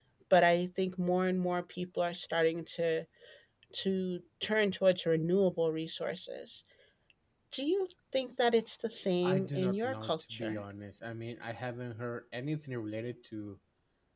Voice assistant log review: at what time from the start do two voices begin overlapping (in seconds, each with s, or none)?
9.2 s